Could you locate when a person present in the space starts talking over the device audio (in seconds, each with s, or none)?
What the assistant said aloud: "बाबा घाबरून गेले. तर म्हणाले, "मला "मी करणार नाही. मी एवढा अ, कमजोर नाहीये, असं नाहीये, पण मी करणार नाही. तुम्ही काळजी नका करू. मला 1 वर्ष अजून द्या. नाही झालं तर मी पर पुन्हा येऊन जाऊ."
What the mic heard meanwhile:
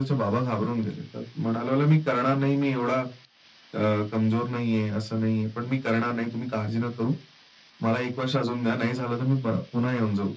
none